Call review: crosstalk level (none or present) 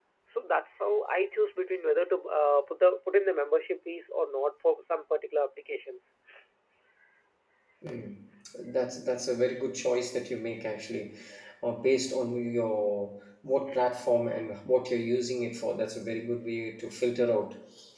none